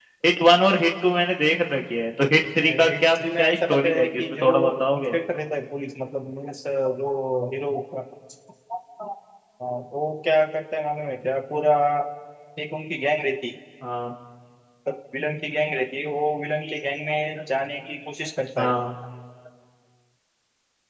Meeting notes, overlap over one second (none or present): present